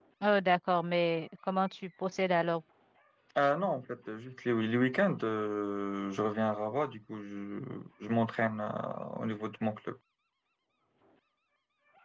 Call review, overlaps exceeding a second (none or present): none